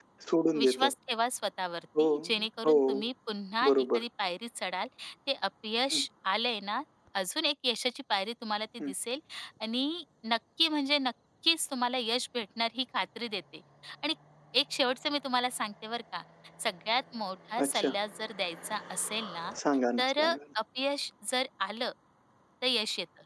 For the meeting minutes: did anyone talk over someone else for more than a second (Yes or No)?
No